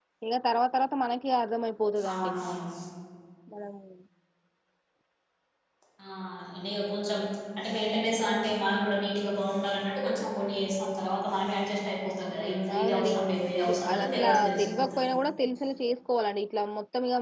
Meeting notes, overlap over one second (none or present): present